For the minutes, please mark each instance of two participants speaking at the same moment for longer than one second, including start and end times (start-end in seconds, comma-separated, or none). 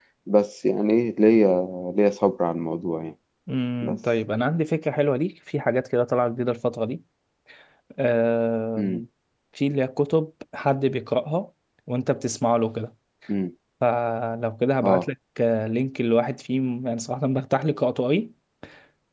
none